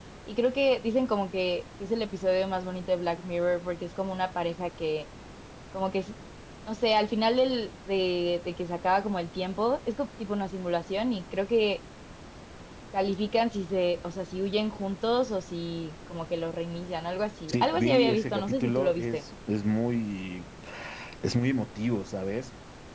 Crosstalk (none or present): present